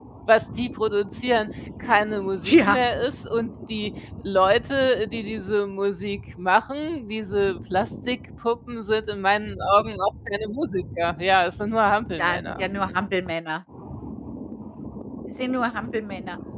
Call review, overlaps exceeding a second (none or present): none